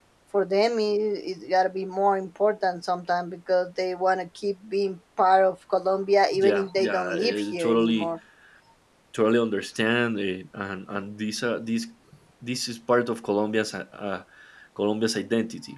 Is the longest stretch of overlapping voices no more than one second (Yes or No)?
No